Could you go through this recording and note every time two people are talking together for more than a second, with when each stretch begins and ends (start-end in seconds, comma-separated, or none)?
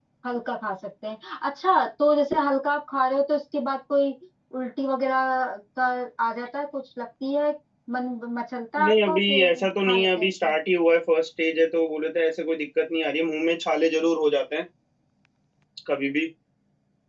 8.8-10.5